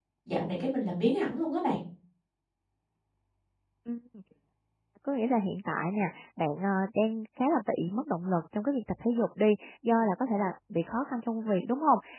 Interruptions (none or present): none